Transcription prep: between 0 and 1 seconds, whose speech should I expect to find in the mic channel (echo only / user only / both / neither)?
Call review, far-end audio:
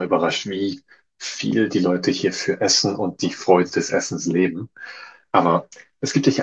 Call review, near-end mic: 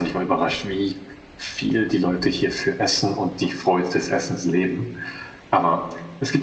echo only